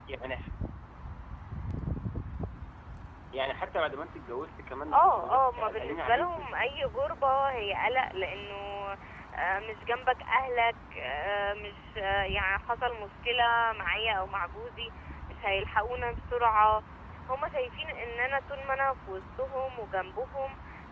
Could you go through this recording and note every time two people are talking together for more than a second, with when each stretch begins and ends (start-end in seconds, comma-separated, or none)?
4.9-6.5